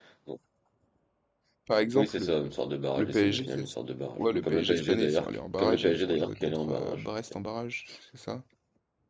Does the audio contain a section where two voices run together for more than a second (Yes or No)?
Yes